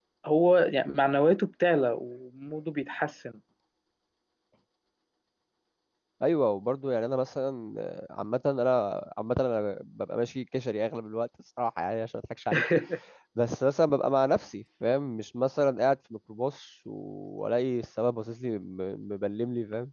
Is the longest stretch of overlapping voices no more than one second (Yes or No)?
Yes